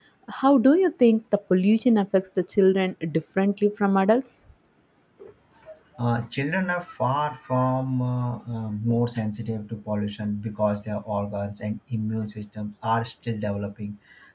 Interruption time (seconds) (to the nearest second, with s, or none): none